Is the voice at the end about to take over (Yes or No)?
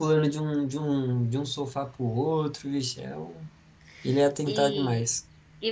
Yes